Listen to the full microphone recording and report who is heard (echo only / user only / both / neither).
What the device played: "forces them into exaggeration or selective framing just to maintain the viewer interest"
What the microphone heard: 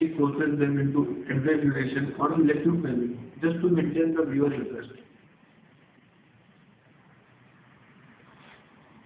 echo only